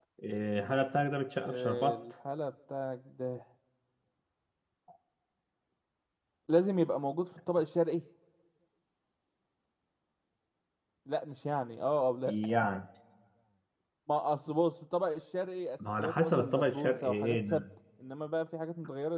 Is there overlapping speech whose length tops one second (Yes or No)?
Yes